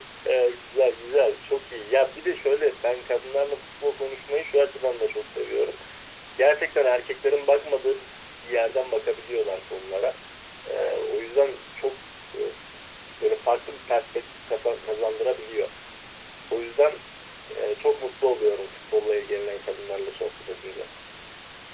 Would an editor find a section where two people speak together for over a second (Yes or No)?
No